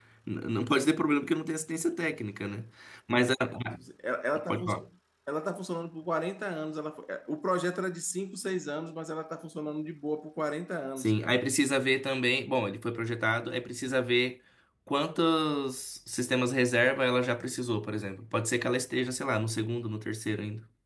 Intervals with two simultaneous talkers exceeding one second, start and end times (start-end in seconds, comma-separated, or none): none